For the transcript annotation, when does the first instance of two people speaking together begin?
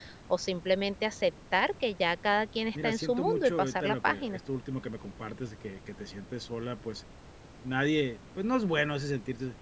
2.8 s

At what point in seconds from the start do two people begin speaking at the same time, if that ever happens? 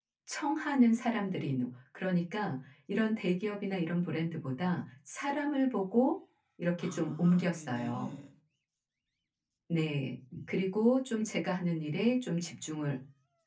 6.8 s

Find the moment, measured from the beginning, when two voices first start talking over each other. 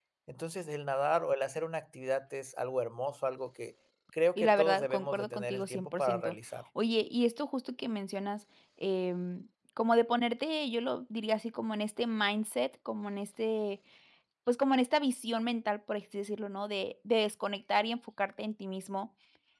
4.4 s

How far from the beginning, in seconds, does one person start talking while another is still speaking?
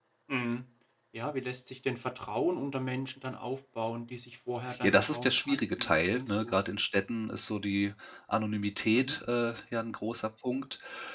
4.7 s

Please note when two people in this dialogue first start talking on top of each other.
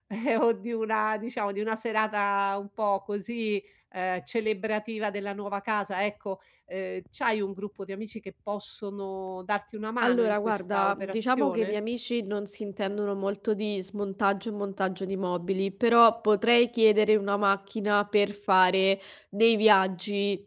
10.0 s

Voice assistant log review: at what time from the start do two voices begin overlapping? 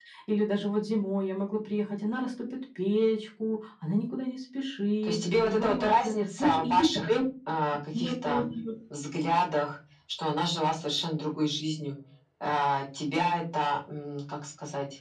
5.0 s

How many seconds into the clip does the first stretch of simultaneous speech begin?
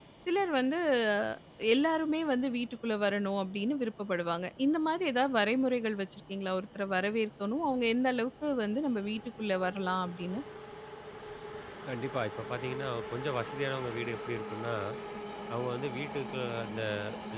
none

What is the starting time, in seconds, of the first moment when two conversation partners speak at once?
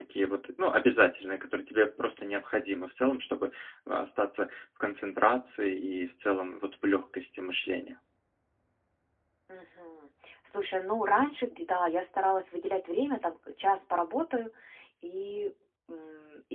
none

